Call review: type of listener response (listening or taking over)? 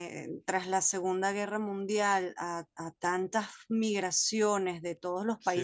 listening